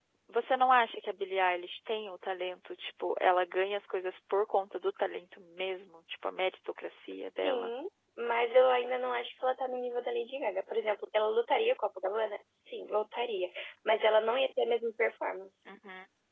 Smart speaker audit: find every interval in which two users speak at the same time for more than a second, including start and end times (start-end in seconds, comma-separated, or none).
none